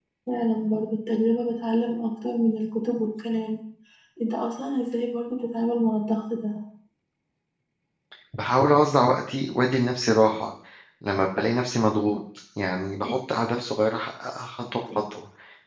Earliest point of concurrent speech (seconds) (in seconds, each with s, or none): none